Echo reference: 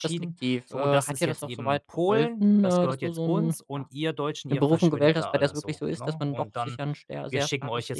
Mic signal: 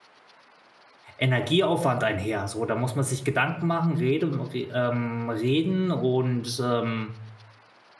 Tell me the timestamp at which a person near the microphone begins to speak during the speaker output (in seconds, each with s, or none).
1.2 s